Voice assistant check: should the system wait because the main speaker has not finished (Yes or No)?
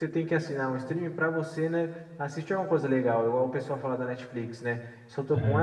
Yes